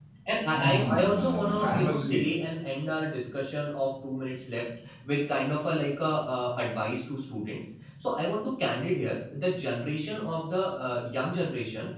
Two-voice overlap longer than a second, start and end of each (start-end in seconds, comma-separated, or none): 0.5-2.2